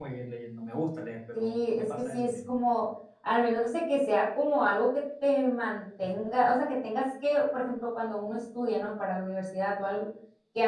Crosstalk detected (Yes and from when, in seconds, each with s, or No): Yes, from 1.3 s